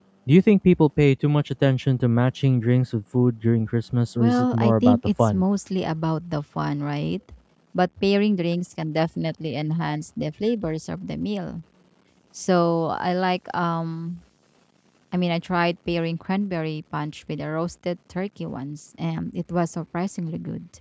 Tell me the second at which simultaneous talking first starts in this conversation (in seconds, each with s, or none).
4.2 s